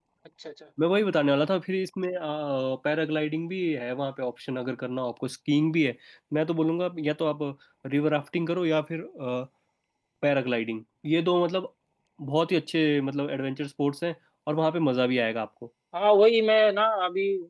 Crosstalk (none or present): none